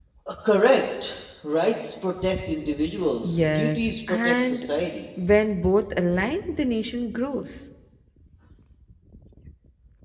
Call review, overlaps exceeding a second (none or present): present